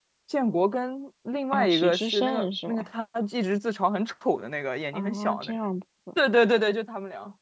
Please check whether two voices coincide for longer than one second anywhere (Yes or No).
Yes